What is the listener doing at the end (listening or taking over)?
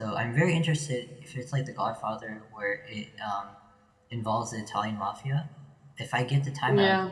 listening